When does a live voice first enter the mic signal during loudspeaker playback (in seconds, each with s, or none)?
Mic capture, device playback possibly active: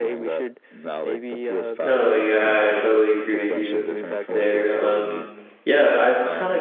1.8 s